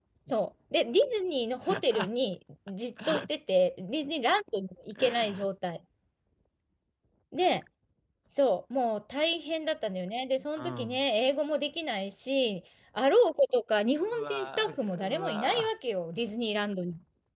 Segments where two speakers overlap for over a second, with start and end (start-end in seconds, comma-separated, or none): 14.2-15.7